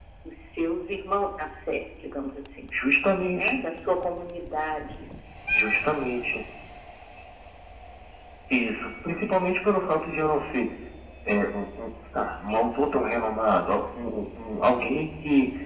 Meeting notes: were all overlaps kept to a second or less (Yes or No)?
Yes